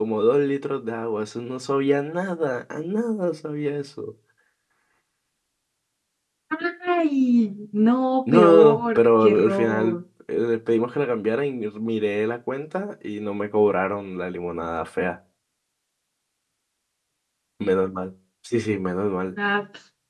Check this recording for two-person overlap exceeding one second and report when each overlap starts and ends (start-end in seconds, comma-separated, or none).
8.3-10.0